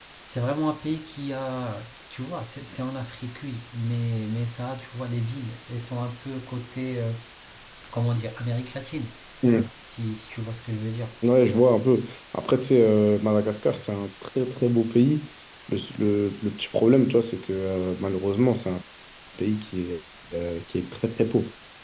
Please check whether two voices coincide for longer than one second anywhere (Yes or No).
No